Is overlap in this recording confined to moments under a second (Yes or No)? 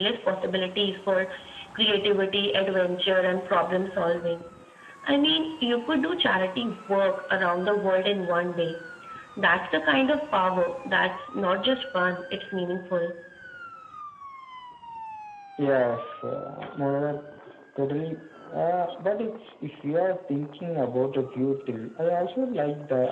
Yes